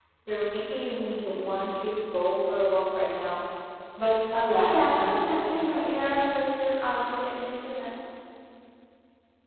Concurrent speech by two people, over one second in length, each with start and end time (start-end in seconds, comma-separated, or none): 4.5-5.9